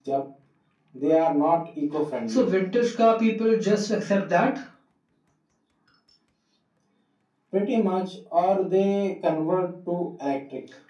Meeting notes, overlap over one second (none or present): none